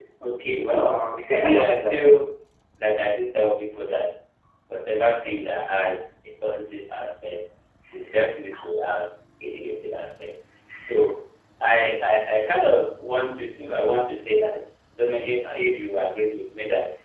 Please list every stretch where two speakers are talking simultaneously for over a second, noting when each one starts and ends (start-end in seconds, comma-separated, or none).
0.5-2.0